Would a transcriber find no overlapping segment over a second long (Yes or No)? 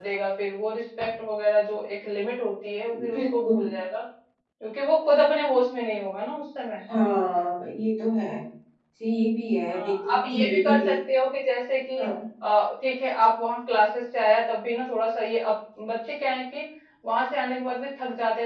No